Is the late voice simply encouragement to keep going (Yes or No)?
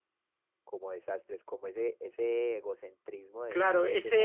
No